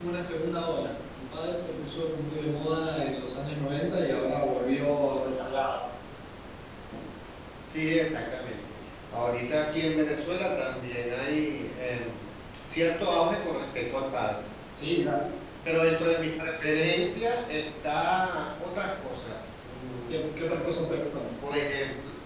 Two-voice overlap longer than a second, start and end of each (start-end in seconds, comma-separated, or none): none